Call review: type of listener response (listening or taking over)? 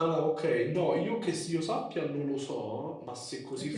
taking over